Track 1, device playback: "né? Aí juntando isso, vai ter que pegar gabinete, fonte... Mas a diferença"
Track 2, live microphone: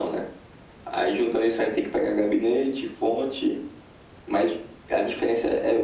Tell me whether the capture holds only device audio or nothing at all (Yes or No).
Yes